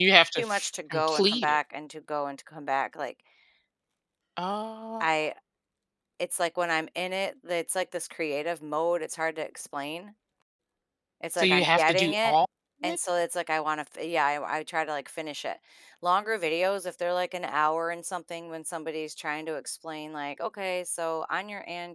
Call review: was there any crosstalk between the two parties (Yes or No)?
Yes